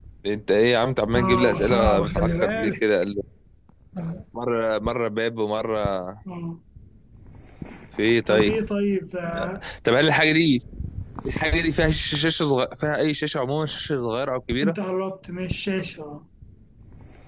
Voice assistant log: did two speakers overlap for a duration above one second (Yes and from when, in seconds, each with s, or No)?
Yes, from 1.2 s